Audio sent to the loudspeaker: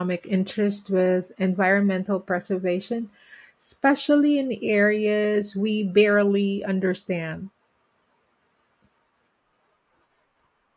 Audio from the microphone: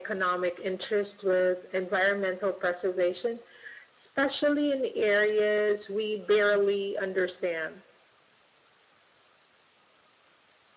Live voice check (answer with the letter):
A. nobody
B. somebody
A